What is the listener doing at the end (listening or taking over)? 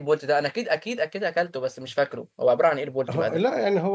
taking over